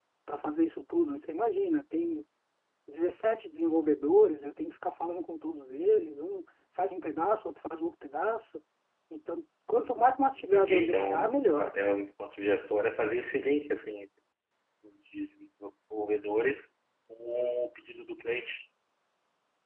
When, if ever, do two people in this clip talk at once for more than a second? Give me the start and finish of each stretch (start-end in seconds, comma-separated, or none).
10.5-11.7